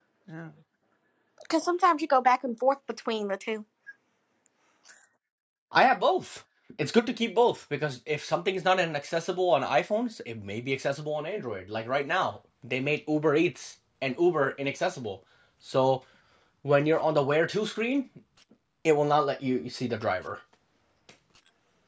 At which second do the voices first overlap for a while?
none

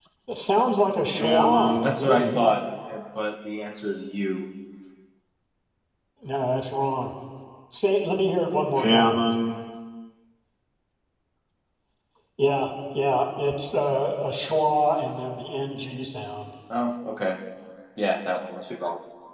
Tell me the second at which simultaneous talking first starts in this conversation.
1 s

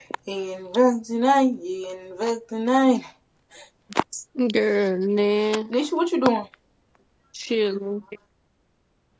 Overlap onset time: none

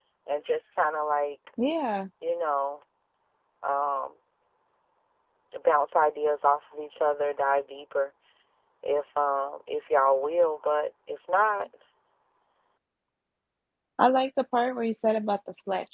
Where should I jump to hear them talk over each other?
none

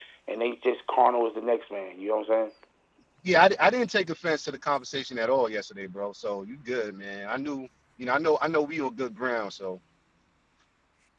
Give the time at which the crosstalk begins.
none

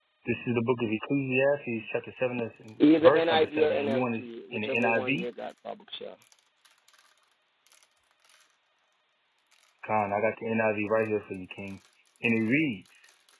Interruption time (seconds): 3 s

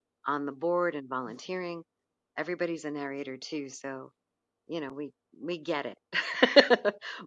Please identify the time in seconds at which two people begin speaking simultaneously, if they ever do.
none

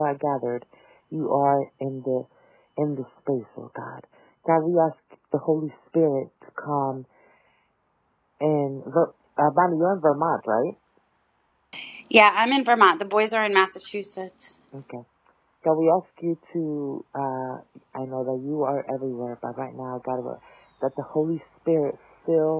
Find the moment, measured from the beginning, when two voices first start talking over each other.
none

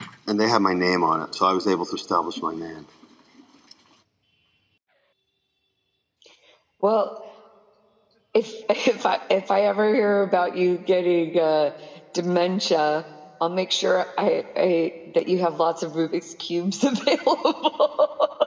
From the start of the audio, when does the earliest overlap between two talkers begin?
none

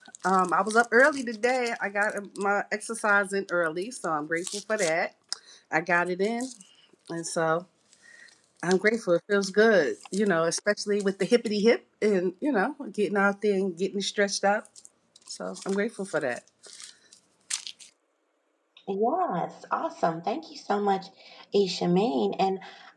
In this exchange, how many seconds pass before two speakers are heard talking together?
none

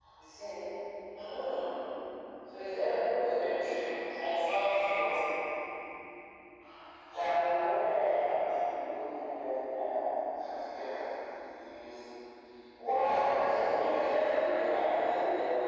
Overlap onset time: 13 s

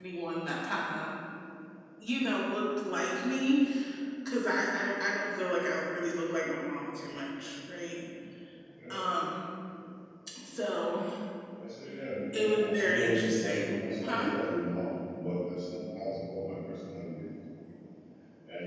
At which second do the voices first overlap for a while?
12 s

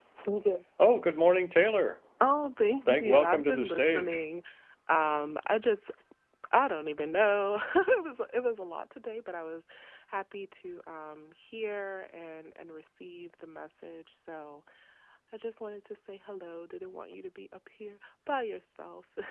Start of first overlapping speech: 3 s

